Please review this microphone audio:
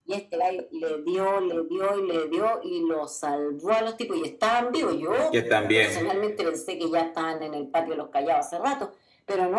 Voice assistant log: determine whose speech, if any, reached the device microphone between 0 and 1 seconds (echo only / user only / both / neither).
echo only